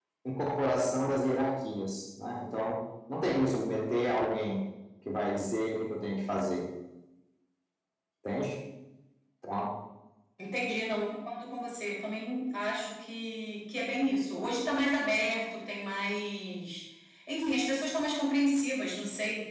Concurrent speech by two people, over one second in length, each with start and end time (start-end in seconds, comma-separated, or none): none